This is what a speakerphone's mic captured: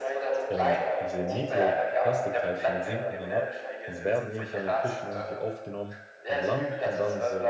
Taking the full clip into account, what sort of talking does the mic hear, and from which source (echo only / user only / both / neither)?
both